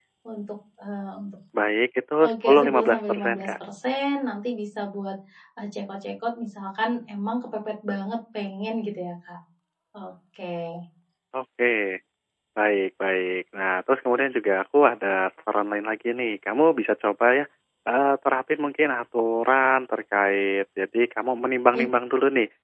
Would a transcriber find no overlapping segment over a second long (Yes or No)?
No